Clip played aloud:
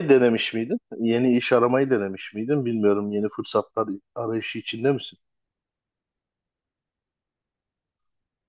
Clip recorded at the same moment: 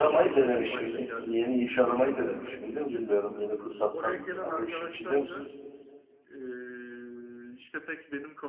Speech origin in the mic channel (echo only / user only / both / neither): both